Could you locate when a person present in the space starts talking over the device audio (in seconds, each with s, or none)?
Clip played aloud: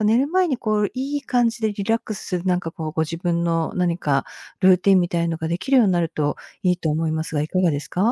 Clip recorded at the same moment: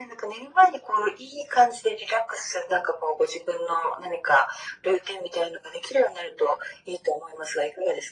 none